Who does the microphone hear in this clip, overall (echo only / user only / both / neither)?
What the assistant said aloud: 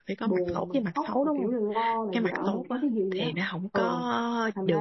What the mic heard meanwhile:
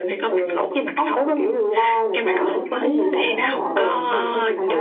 both